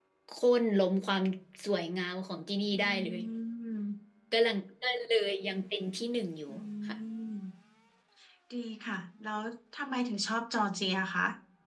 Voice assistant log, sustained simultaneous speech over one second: none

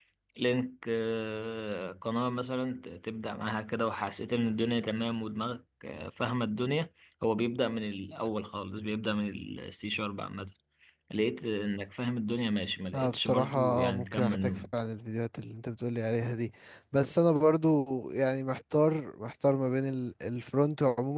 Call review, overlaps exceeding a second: present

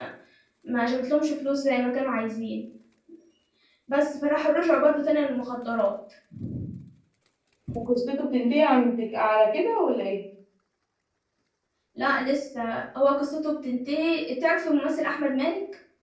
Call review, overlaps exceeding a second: none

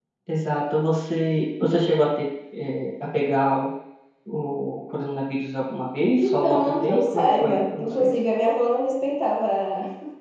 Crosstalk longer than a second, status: present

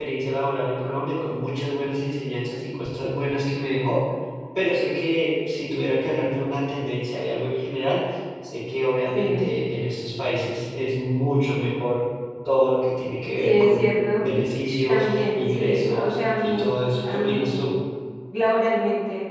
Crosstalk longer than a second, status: present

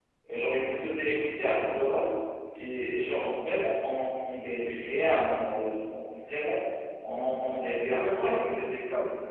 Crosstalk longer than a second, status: present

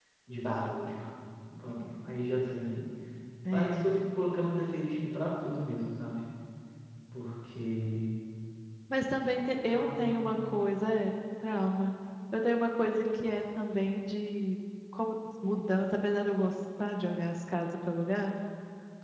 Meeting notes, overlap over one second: none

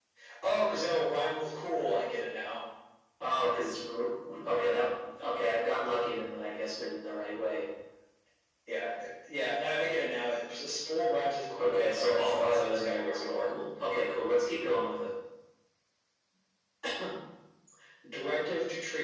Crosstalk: present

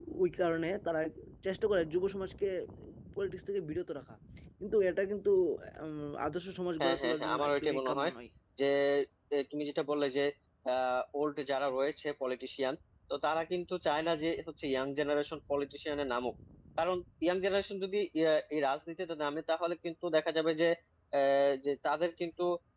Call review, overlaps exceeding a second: present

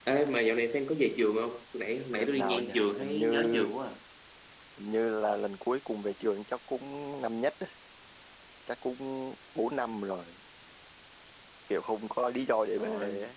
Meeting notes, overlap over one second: present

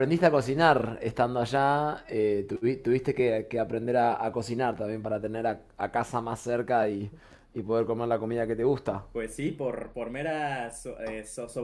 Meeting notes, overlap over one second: none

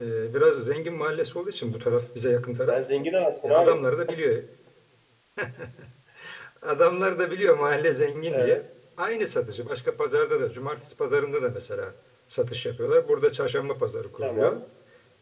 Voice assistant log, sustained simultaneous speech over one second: none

